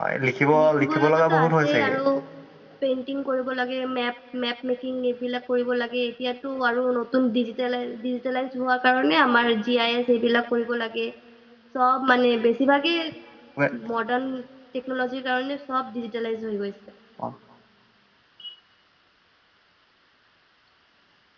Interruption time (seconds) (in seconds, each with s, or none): 0.6 s